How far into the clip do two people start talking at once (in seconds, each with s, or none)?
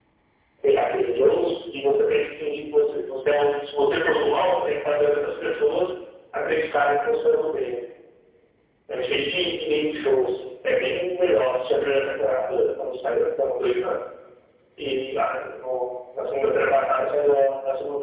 none